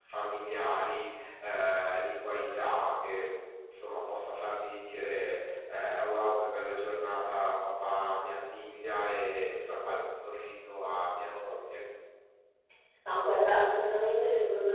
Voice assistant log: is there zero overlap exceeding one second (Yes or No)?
Yes